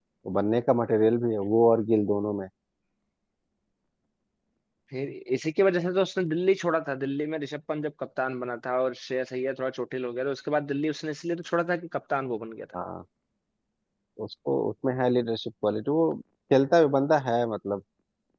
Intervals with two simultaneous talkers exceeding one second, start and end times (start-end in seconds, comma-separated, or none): none